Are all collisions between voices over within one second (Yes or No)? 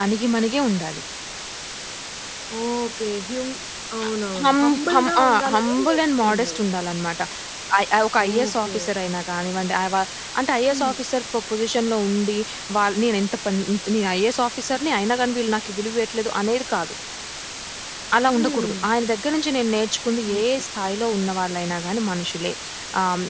No